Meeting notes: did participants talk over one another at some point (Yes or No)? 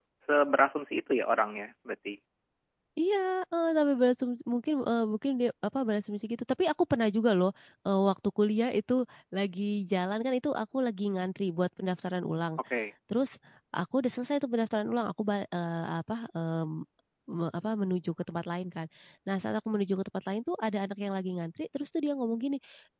No